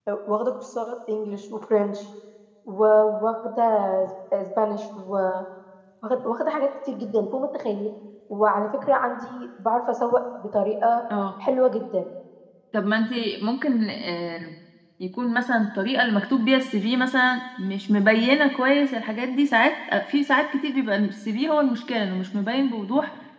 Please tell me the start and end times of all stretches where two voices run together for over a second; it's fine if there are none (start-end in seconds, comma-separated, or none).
none